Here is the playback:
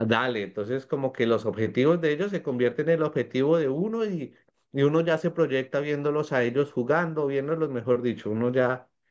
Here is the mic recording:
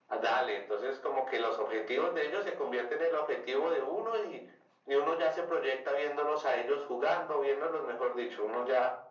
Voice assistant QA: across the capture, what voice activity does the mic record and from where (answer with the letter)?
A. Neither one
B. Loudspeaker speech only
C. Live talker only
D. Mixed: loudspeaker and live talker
B